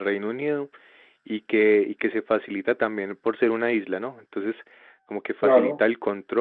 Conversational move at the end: listening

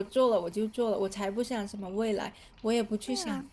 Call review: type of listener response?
listening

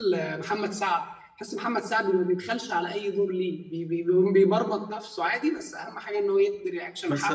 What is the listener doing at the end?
taking over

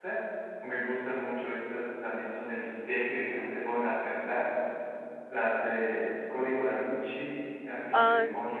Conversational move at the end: listening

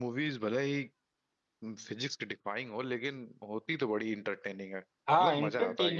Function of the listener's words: taking over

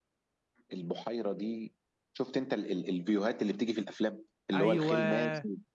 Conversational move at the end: listening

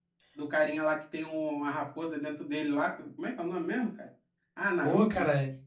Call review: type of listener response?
taking over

